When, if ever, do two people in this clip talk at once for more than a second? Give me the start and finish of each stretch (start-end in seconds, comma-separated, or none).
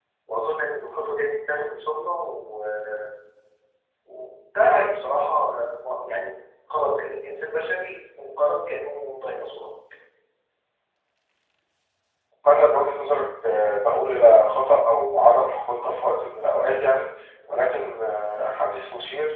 none